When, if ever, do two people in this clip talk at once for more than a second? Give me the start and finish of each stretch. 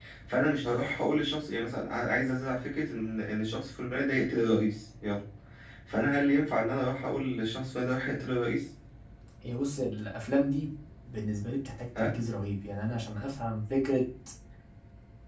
none

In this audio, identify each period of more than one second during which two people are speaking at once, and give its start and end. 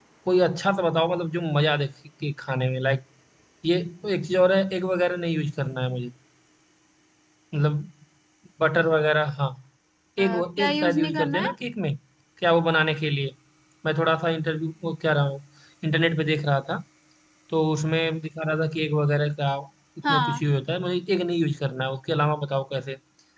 10.2-11.5

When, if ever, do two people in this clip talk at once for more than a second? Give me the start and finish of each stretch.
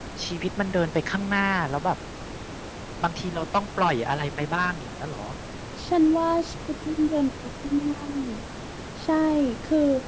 none

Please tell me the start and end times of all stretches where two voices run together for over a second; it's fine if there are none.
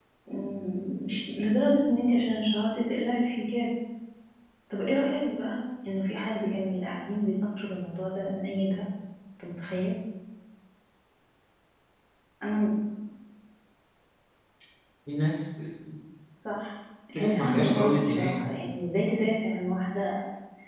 17.1-18.5

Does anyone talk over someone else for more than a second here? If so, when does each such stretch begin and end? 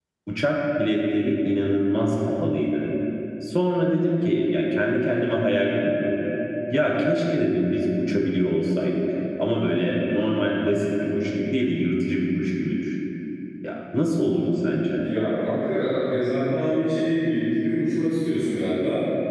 none

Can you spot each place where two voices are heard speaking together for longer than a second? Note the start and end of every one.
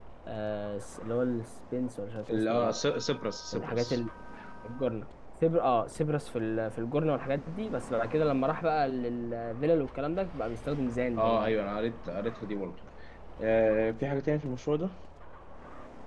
none

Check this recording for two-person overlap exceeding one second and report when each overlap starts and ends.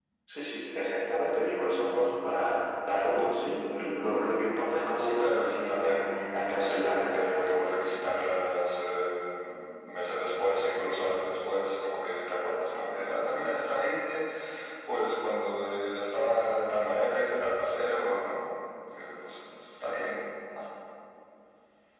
5.0-7.6

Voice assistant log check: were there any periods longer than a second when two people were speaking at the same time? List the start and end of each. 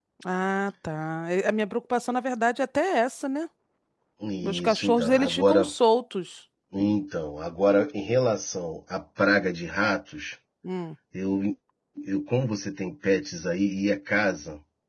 4.4-5.7

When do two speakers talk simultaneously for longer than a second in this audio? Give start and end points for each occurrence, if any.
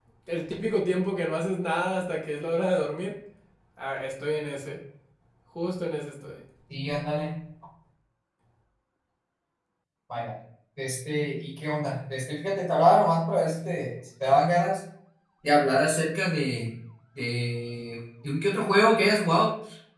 none

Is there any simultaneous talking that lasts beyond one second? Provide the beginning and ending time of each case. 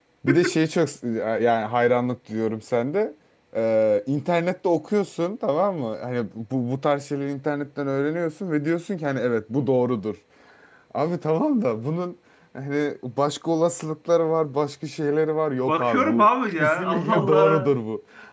15.7-17.7

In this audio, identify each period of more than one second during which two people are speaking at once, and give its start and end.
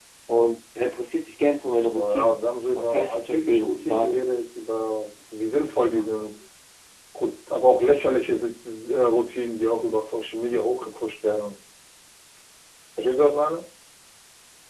2.8-4.2

